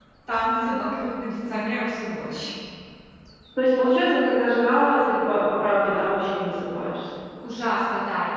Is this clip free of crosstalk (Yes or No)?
Yes